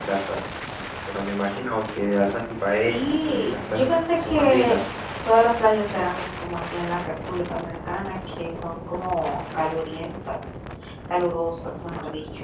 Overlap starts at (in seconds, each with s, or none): 2.8 s